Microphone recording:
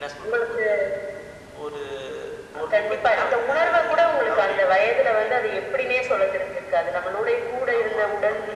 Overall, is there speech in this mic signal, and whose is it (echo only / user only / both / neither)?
echo only